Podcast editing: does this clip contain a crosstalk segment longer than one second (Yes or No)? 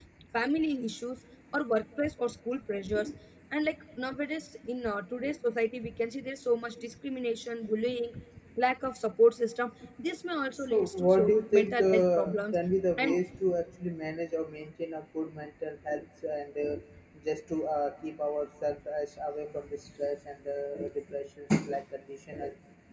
Yes